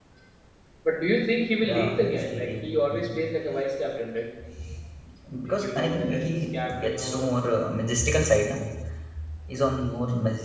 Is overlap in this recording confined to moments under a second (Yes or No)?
No